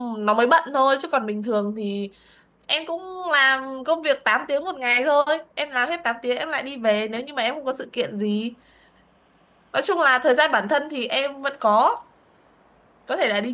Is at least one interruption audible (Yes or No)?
No